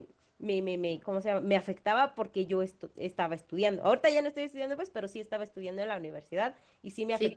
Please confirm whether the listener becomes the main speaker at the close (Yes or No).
No